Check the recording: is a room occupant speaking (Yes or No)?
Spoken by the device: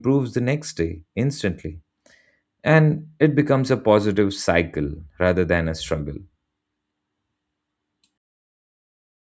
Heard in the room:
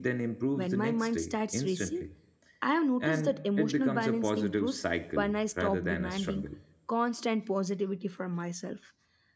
Yes